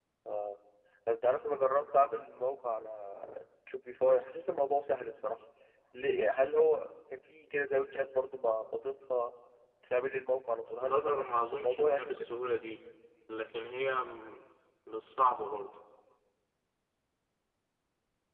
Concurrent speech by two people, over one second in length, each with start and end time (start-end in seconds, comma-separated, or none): 10.8-12.1